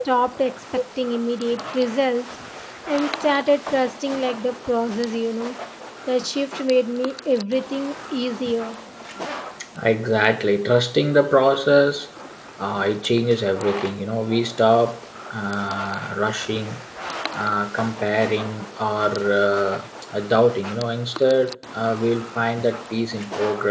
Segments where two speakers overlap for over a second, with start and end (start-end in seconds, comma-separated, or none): none